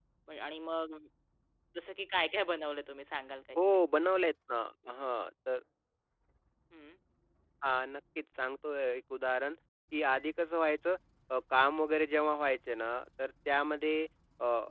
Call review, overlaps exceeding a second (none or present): none